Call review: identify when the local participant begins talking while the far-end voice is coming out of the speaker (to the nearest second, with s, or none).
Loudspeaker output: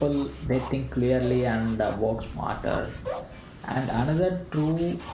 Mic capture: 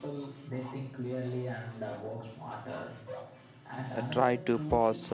4 s